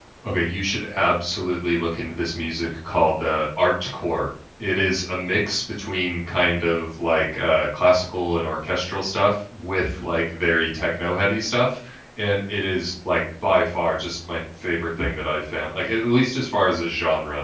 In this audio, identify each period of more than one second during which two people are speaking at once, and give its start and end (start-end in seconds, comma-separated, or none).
none